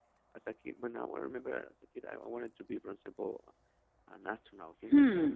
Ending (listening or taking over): taking over